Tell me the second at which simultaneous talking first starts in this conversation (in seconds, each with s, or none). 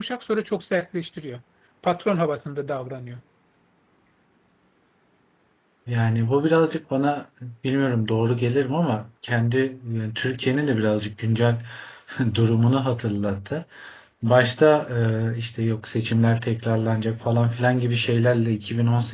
none